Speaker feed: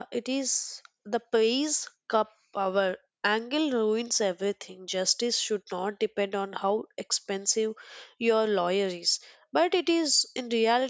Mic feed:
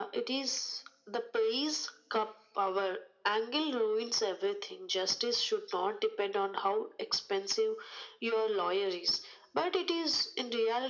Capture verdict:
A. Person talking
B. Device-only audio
B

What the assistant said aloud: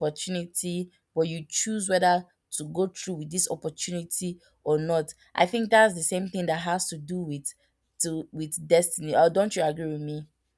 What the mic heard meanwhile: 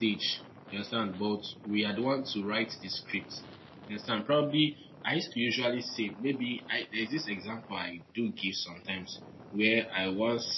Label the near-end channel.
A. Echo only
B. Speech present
B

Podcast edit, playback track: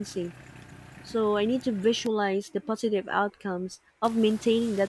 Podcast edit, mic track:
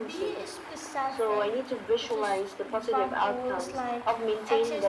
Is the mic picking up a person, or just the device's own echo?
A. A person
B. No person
A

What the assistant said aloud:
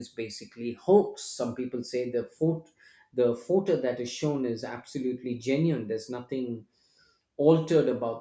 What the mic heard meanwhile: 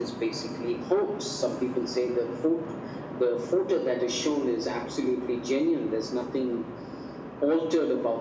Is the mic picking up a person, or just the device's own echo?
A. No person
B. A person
A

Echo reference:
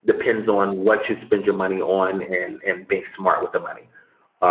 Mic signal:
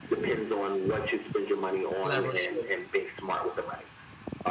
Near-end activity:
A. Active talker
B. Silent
A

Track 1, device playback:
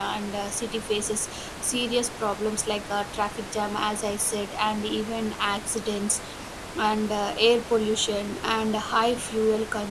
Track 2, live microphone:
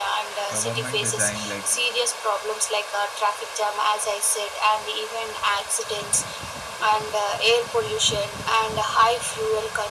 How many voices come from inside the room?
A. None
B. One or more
B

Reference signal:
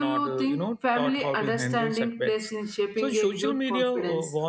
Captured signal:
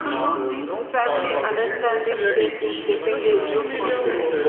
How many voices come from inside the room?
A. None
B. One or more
B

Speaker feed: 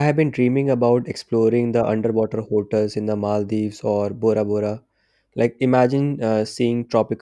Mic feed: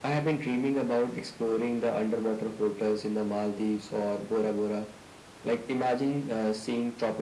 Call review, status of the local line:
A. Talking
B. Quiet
B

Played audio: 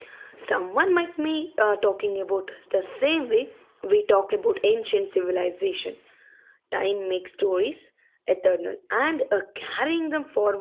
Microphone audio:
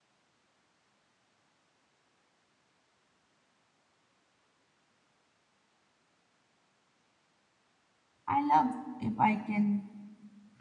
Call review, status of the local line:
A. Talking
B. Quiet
A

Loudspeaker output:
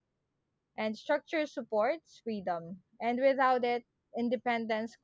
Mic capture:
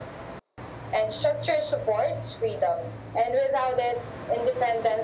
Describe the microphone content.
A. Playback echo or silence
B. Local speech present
A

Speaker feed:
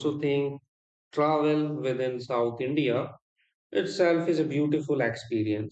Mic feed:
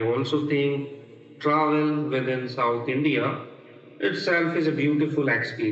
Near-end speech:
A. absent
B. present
A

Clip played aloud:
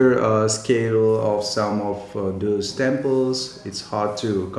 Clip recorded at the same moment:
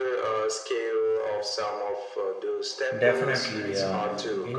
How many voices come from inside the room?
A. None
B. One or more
B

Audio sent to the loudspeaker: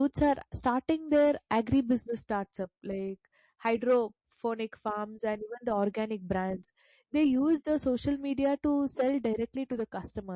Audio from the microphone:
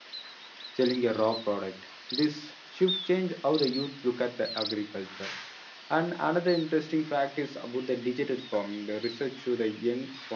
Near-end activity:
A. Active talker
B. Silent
A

